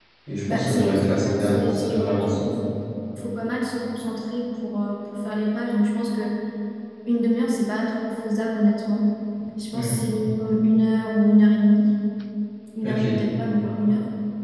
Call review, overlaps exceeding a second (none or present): present